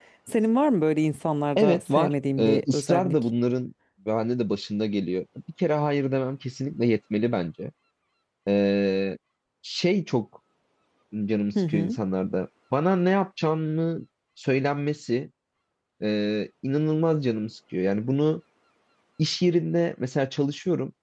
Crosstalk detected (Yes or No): Yes